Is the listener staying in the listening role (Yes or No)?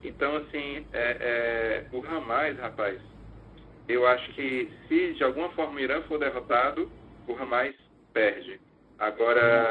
Yes